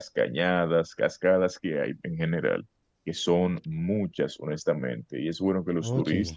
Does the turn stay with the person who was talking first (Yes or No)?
Yes